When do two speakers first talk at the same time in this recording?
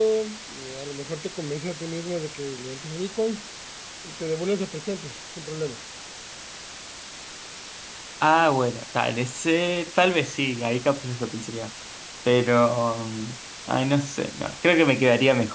none

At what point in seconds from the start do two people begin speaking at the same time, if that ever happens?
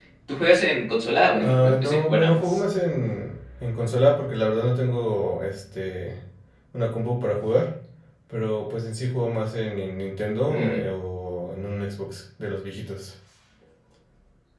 1.4 s

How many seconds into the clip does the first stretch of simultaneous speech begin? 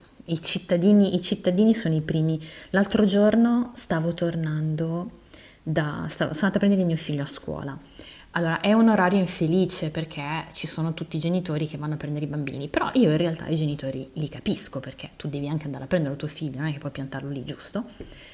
none

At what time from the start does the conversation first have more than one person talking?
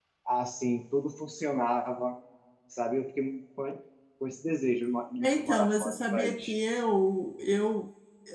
5.2 s

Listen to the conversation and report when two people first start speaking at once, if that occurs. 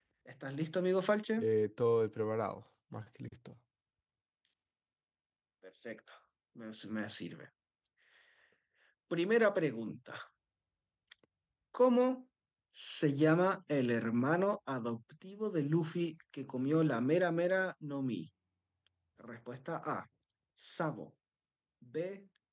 none

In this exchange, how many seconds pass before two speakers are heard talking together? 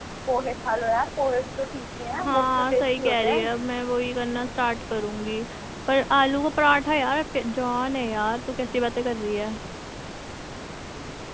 2.1 s

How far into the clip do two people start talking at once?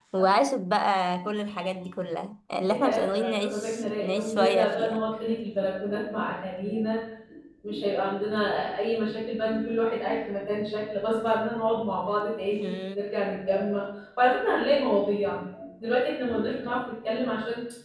2.6 s

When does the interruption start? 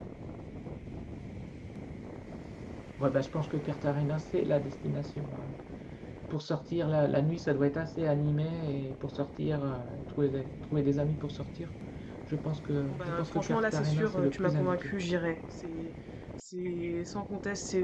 12.9 s

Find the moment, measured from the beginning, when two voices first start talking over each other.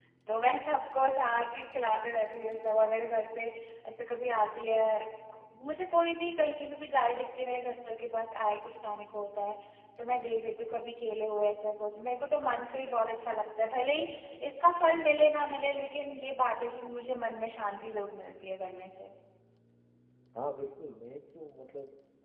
none

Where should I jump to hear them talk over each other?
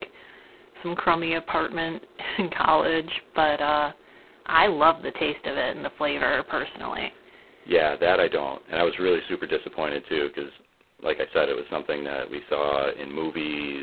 none

